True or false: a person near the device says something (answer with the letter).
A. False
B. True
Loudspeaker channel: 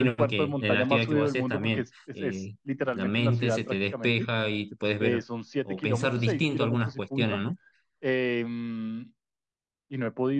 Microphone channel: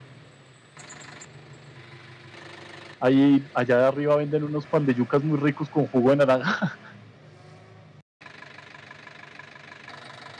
B